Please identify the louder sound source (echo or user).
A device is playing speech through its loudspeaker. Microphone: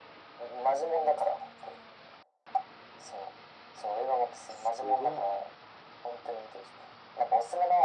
echo